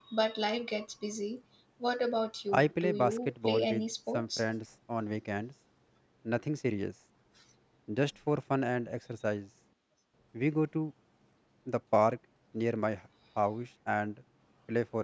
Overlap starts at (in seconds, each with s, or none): 2.5 s